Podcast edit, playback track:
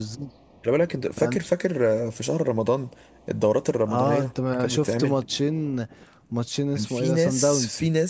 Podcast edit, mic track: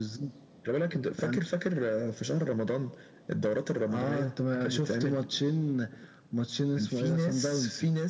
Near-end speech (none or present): none